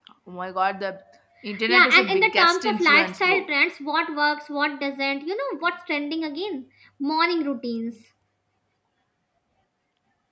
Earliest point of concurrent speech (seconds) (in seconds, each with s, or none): 1.7 s